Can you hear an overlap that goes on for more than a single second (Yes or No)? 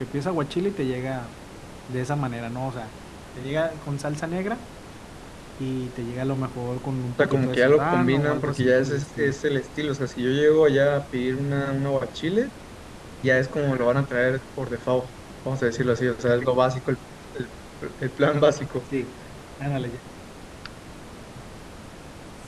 Yes